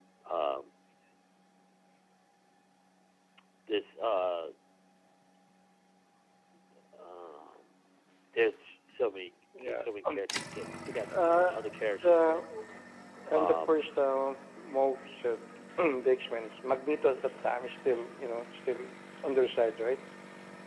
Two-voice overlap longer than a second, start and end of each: 11.1-12.4

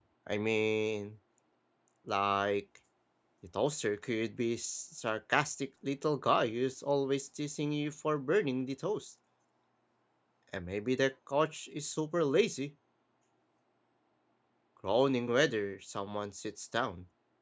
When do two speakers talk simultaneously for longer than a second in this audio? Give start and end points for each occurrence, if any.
none

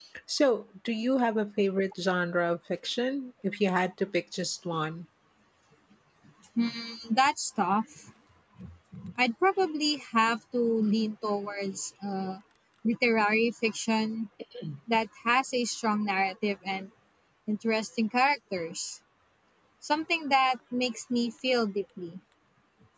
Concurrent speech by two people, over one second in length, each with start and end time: none

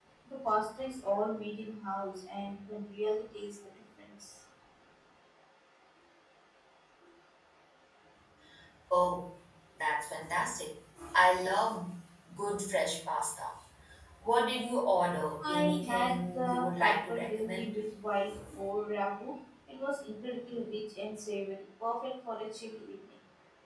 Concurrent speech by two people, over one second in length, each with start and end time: 15.6-17.7

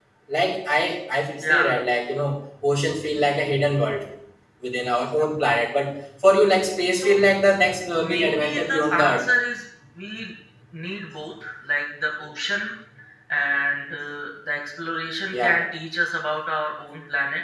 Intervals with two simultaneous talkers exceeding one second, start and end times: 8.0-9.2

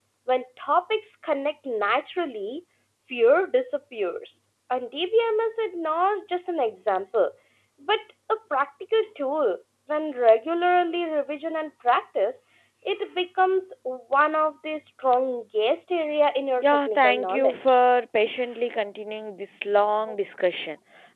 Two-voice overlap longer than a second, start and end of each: 16.6-17.8

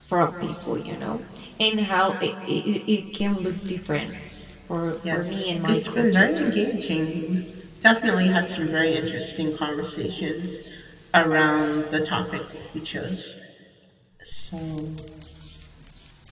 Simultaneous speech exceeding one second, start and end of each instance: 5.1-6.5

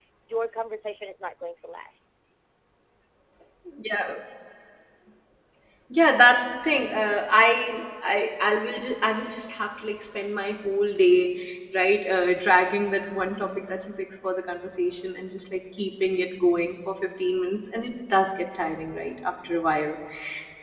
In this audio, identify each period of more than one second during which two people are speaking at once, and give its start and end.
none

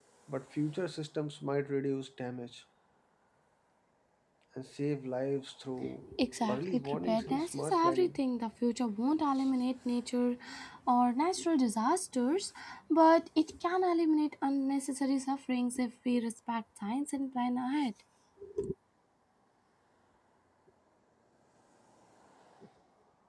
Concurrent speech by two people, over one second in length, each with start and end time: 6.5-8.2

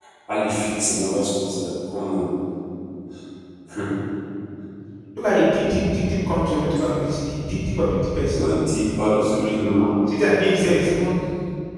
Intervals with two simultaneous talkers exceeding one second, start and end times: none

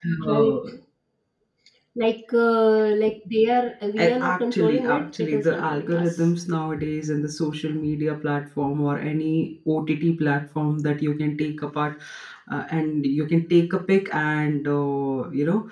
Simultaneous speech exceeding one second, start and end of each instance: 4.0-6.3

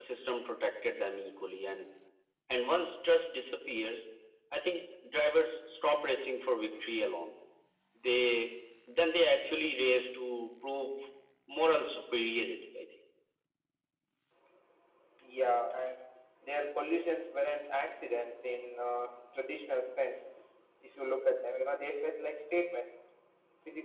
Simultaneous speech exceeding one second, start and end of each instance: none

